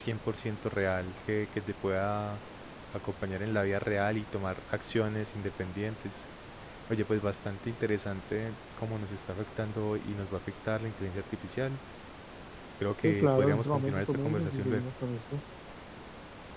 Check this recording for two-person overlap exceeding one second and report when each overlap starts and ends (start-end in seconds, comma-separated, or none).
13.0-14.8